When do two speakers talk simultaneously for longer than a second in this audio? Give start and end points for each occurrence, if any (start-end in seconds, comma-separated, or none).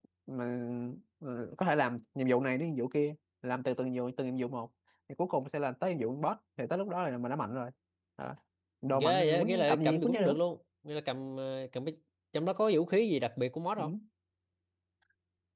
8.9-10.3